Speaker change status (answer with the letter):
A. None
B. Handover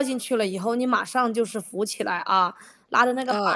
A